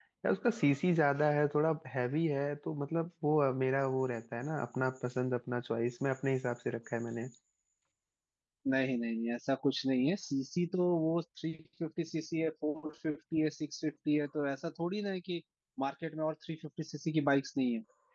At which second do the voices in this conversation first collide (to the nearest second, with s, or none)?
none